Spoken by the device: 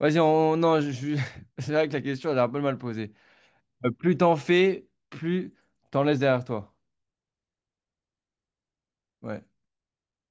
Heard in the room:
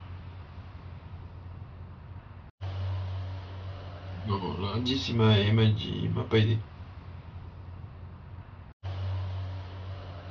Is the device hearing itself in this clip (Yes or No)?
No